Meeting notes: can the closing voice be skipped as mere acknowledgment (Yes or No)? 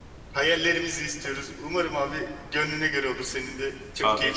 No